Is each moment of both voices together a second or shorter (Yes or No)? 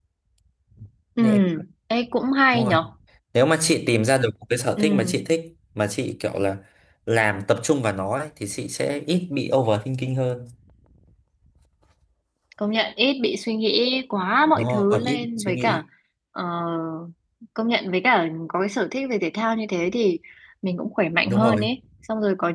No